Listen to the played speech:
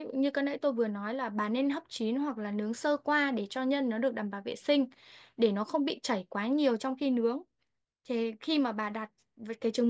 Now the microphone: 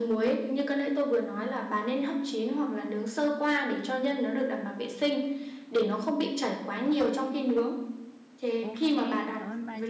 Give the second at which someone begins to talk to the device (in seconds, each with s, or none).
8.6 s